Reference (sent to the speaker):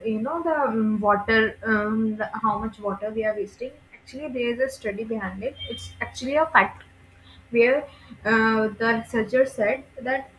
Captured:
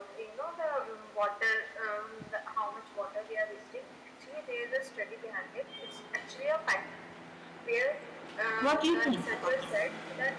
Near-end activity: present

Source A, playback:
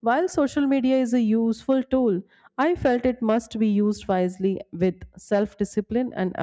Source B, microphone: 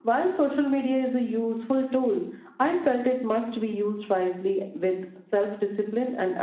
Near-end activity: none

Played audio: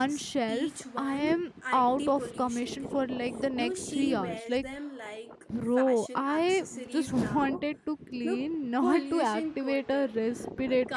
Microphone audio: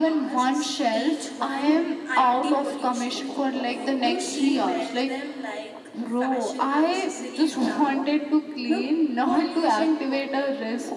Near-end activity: none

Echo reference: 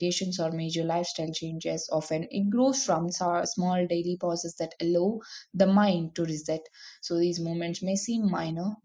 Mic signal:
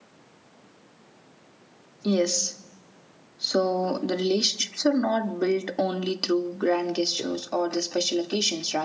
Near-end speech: present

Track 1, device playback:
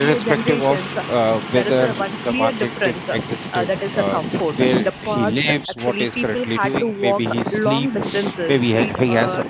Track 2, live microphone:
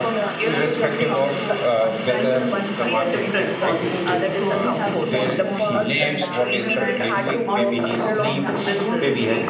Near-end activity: present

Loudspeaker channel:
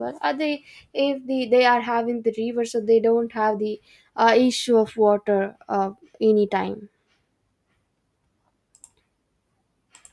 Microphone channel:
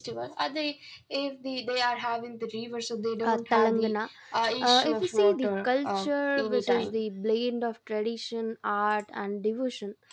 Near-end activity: present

